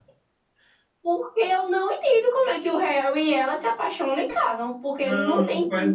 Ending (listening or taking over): taking over